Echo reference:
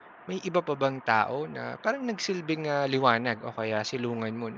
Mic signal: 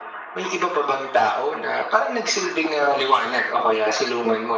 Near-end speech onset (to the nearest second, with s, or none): none